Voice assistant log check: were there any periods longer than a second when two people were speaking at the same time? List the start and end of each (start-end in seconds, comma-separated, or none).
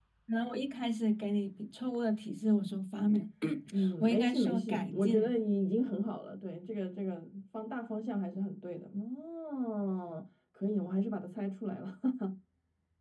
4.0-5.3